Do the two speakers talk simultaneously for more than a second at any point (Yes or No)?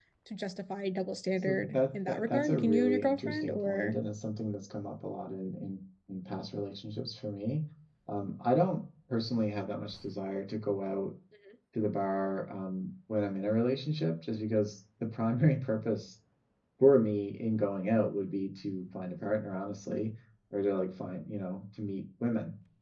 Yes